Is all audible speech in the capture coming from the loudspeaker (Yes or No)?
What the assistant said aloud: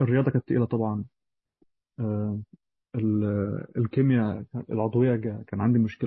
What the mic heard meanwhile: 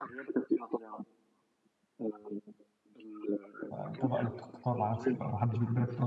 No